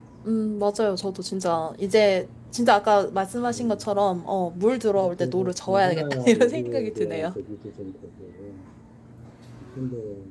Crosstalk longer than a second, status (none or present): present